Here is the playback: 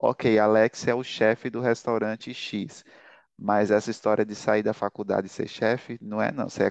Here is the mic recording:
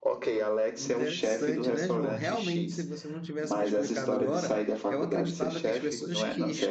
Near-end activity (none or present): present